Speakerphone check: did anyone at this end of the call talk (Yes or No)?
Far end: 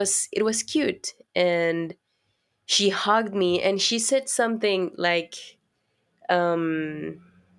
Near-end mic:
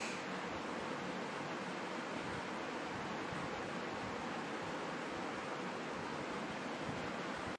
No